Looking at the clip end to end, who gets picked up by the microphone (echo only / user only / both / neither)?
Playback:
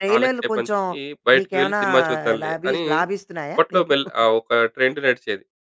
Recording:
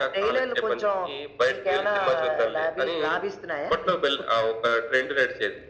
echo only